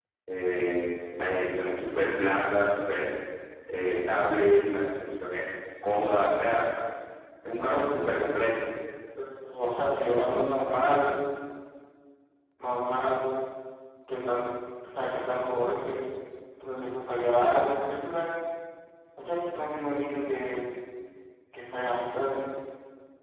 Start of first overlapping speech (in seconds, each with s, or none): none